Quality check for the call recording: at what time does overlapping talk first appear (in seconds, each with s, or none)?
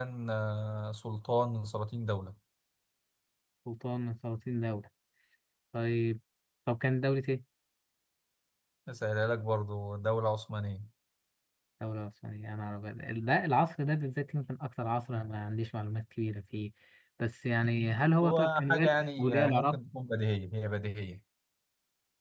18.0 s